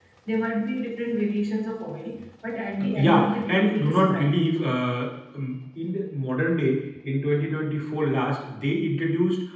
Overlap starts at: 3.0 s

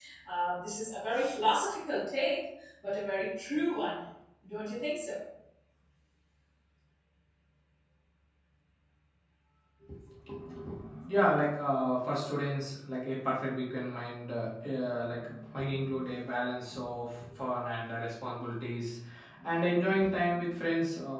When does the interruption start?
none

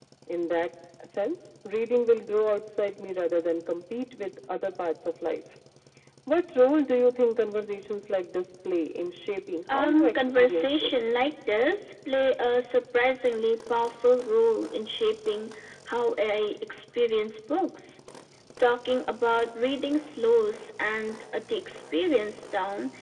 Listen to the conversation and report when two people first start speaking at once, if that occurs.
9.7 s

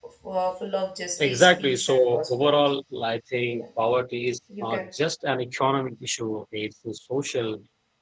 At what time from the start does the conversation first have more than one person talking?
1.2 s

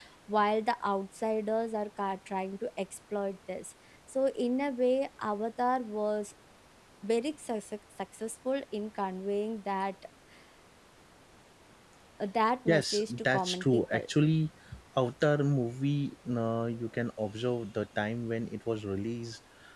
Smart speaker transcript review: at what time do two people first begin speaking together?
12.7 s

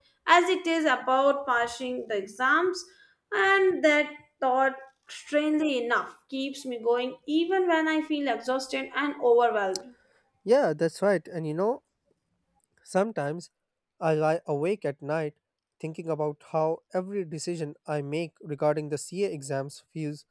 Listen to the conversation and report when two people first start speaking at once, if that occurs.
none

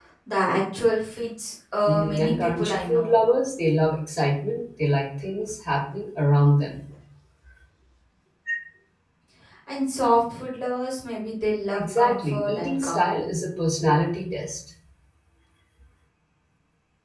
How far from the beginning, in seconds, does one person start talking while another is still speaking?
1.9 s

